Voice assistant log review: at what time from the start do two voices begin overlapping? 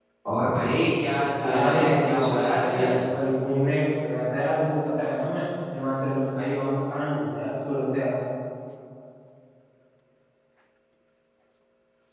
1 s

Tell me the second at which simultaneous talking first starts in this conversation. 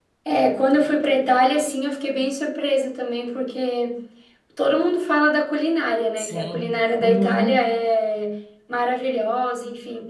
6 s

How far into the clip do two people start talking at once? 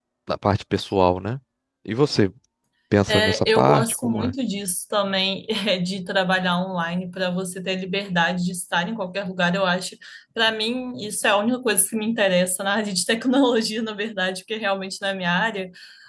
3 s

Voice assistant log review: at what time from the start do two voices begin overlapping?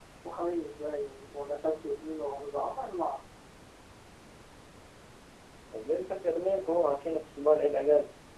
none

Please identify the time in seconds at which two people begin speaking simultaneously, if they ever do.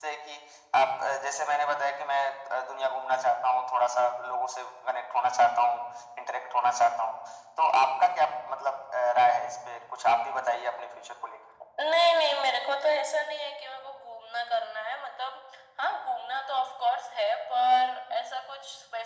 none

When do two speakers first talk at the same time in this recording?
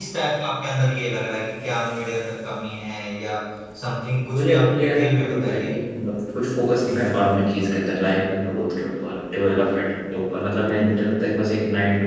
4 s

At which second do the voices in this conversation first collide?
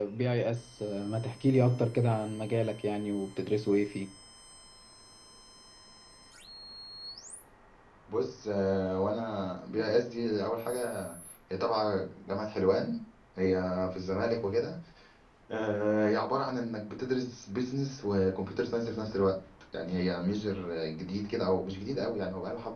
none

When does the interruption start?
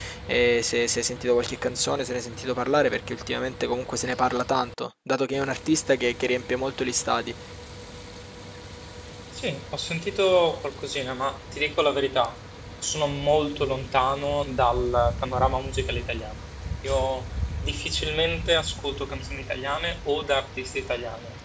none

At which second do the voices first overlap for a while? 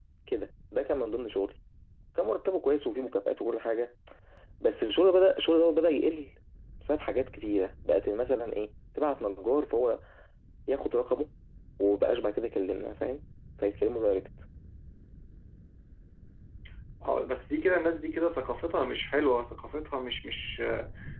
none

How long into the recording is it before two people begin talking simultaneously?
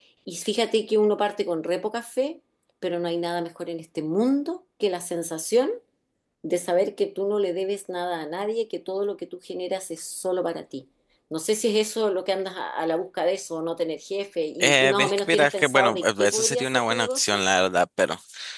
15 s

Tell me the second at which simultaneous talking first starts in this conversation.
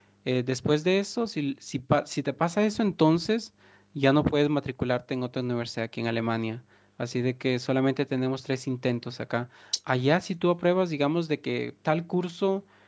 none

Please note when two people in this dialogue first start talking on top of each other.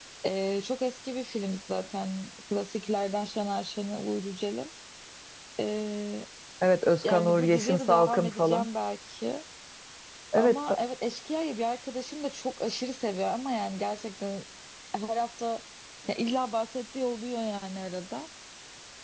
7 s

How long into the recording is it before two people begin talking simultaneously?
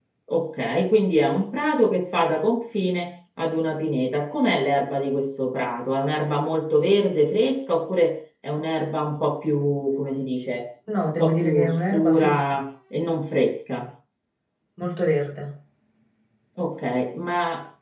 11 s

